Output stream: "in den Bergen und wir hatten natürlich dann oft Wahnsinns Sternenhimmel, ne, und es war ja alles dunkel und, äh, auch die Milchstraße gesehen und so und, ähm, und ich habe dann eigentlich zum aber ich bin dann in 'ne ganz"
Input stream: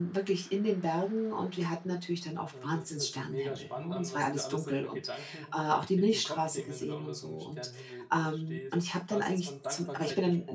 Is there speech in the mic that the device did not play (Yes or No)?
Yes